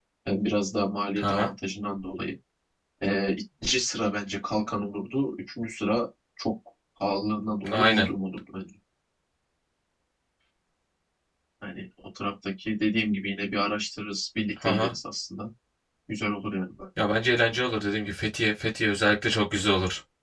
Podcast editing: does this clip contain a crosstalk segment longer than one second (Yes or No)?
No